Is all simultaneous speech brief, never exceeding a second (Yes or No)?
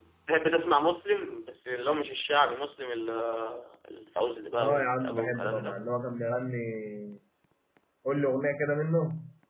No